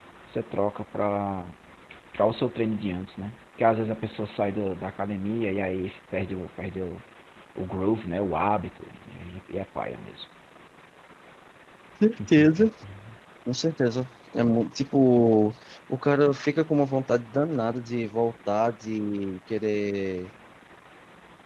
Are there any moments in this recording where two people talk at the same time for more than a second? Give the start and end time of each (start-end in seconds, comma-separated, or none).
none